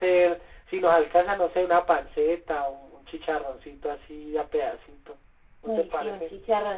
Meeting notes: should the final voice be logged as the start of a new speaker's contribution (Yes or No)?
Yes